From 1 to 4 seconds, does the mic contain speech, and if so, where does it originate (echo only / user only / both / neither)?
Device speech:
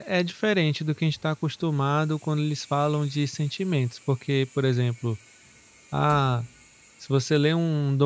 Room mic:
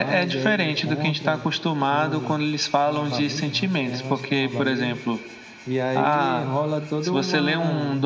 both